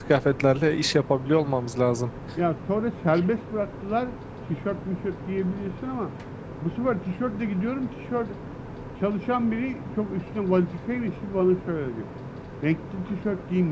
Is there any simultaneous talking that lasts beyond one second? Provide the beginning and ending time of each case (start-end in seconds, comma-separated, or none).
none